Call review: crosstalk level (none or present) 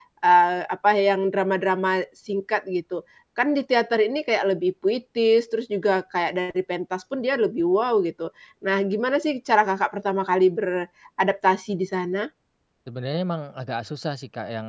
none